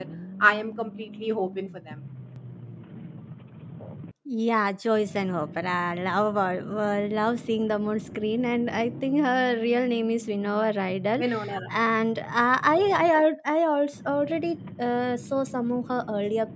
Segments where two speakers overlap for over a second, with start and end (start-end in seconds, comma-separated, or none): none